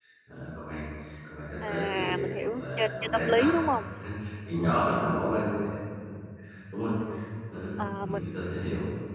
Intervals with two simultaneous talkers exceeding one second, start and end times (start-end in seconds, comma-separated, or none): 1.6-3.4